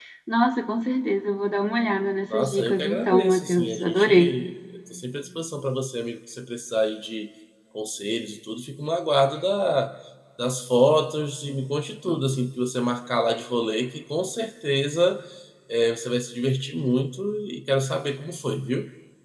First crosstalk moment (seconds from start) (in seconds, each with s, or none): 2.3 s